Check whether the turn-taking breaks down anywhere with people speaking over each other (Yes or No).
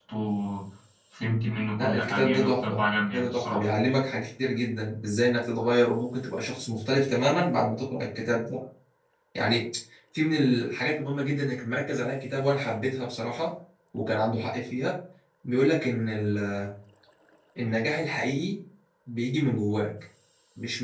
Yes